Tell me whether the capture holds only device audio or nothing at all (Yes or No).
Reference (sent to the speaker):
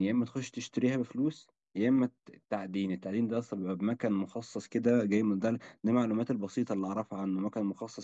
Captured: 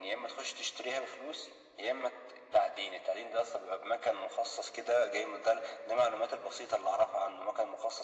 Yes